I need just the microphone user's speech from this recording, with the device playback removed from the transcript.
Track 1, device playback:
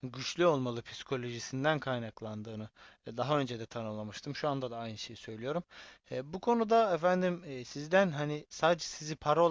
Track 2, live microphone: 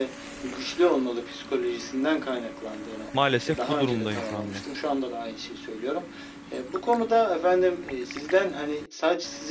maalesef bu durumdayım şu anda.

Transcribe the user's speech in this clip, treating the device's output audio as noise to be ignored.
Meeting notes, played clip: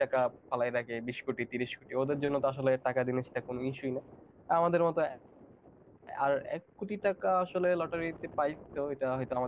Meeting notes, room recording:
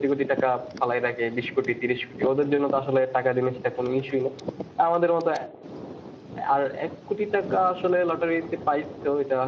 none

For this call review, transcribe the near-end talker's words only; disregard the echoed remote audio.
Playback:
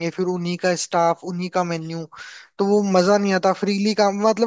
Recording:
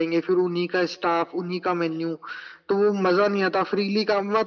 none

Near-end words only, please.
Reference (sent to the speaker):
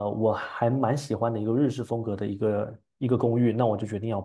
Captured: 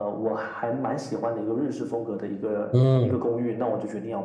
嗯，

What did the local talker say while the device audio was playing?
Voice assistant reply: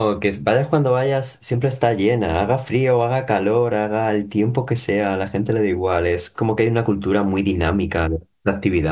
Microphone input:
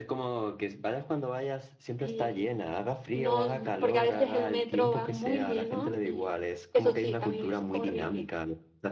y, y no, porque a veces el metro va muy lleno y eso sí, también es horrible.

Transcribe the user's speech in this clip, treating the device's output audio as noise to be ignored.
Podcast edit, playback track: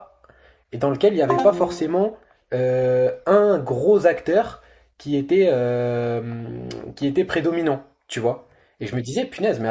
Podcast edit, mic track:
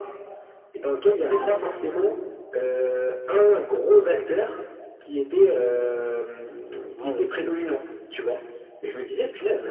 Ouais, ouais.

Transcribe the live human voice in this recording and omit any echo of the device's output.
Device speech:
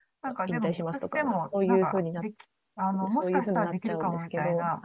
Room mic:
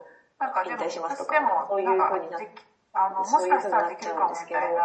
none

